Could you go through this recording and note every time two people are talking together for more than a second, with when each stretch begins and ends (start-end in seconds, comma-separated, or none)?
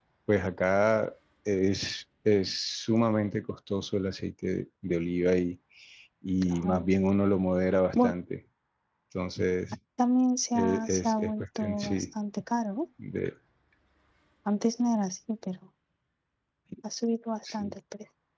10.5-12.0